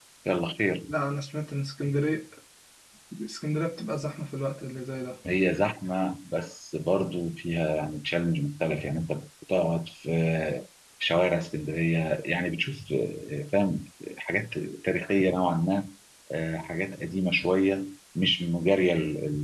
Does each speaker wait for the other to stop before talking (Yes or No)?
Yes